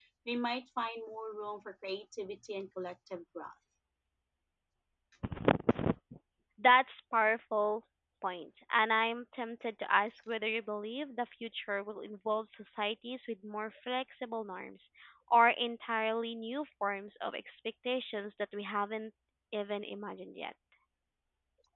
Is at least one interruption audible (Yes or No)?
No